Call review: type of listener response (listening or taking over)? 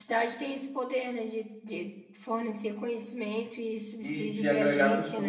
taking over